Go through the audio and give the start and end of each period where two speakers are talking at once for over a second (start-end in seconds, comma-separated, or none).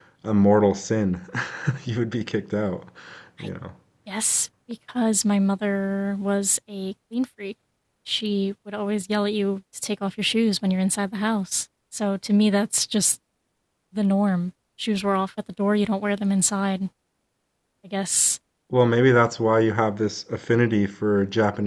none